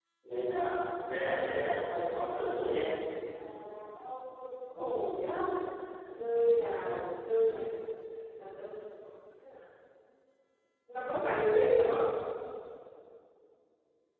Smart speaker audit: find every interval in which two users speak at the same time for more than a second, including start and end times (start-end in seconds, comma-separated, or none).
1.2-2.7